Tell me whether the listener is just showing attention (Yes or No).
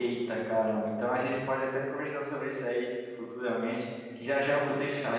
Yes